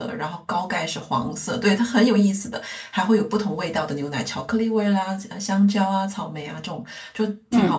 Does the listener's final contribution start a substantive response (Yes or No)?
No